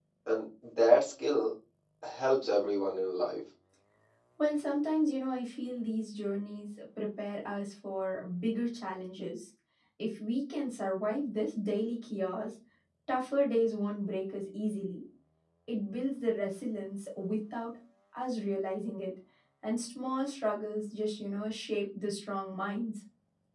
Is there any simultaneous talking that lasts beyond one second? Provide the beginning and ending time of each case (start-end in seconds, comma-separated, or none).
none